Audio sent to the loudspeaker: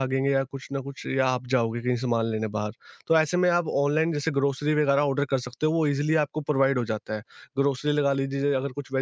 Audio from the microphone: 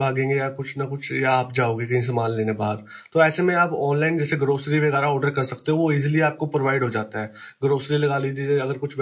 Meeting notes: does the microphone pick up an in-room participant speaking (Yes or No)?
No